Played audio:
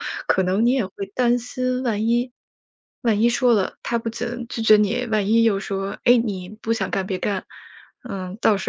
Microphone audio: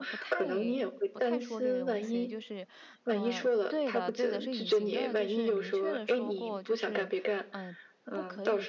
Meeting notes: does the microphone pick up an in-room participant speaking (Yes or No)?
Yes